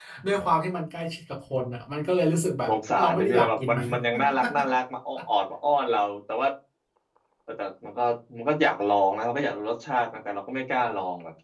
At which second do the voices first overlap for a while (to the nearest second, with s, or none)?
3 s